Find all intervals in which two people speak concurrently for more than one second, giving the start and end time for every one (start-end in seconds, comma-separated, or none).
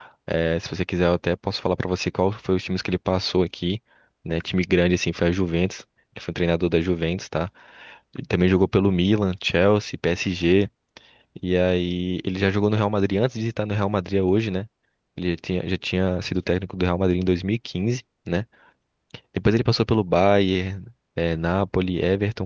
none